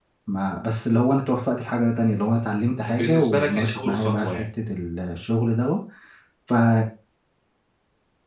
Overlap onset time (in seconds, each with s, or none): 2.8 s